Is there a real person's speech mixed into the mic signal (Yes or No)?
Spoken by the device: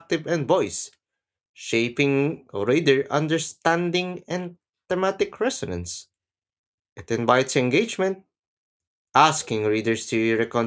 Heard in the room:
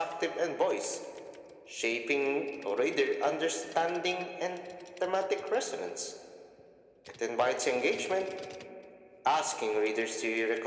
No